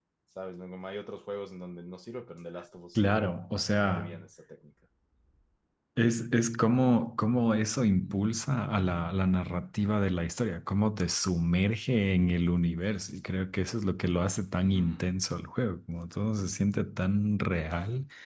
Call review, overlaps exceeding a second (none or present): present